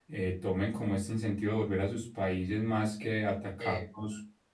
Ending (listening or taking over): listening